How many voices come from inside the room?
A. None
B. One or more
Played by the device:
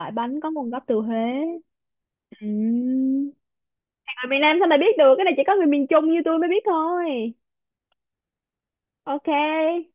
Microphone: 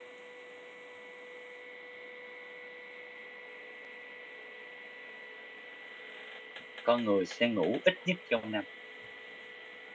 B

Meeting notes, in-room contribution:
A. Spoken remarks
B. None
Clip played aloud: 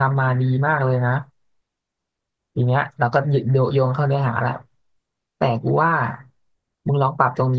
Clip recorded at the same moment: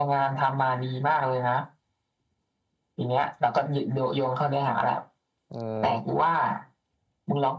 A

